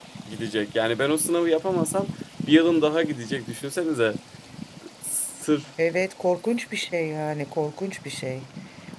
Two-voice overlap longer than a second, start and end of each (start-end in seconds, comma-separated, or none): none